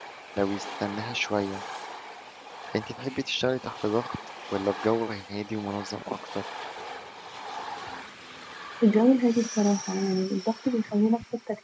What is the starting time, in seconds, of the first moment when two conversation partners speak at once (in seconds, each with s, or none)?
none